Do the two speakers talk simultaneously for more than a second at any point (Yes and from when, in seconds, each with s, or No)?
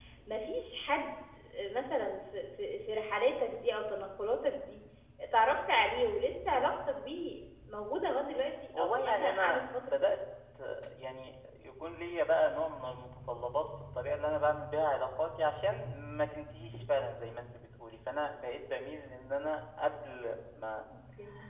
Yes, from 8.7 s